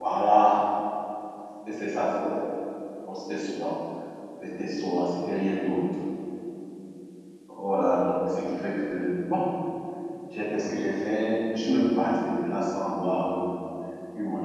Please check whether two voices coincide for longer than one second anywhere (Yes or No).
No